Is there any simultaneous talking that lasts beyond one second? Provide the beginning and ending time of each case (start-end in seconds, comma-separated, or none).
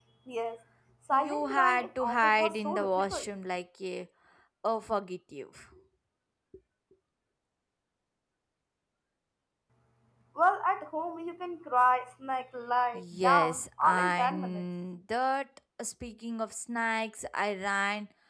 1.1-3.3, 12.9-14.6